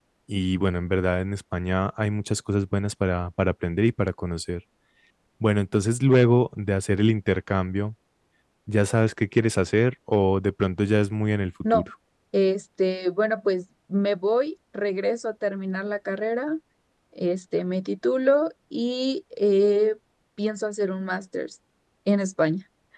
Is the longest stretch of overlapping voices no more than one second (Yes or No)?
Yes